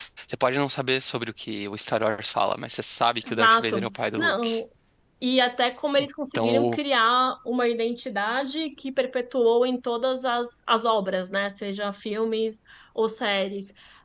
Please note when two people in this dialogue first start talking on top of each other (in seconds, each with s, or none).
3.3 s